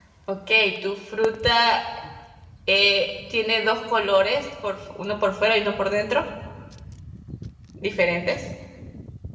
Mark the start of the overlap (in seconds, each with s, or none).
none